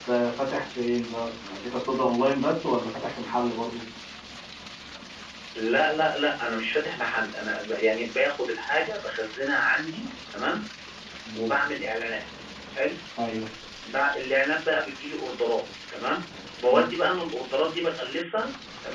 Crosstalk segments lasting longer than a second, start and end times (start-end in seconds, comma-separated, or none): none